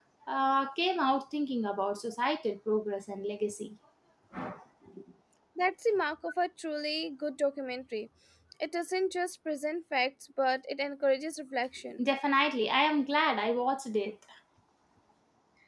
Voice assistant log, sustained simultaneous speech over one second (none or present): none